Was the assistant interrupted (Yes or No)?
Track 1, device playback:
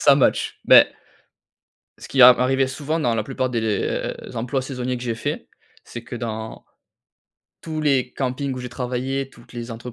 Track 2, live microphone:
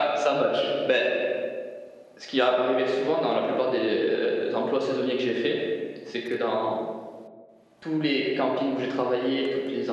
No